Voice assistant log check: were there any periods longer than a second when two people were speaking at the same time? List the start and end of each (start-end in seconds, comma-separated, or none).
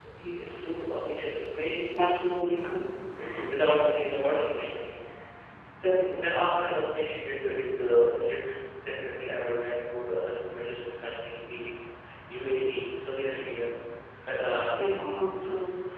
none